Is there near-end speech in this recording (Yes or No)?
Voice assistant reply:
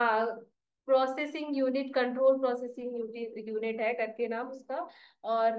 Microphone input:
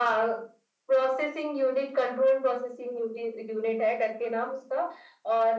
No